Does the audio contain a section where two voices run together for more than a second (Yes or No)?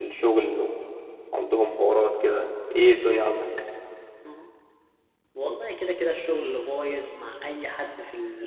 No